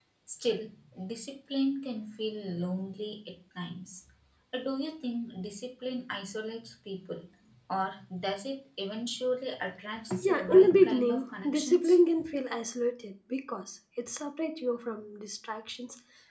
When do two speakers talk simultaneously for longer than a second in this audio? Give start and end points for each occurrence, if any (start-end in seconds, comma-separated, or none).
10.2-12.0